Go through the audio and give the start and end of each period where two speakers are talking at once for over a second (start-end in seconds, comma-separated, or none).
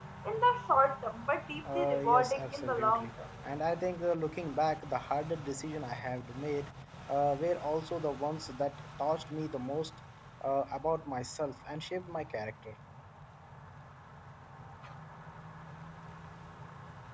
1.8-3.1